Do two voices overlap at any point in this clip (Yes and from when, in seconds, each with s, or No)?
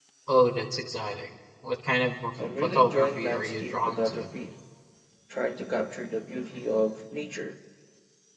Yes, from 2.4 s